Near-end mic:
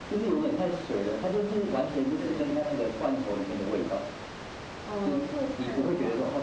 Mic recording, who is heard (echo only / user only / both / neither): echo only